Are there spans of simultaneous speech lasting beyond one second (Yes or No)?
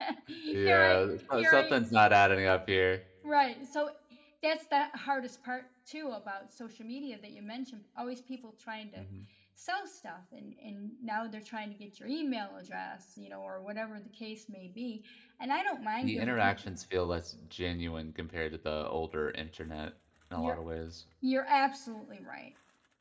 Yes